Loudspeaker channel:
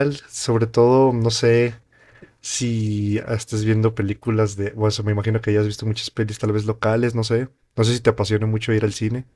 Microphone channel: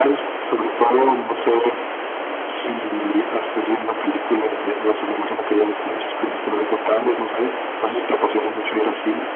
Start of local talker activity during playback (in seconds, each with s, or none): none